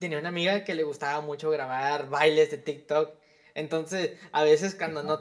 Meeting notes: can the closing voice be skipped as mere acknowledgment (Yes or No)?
Yes